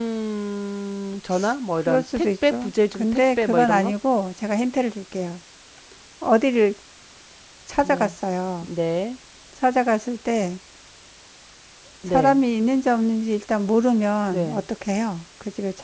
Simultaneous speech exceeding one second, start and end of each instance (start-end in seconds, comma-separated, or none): 1.9-3.9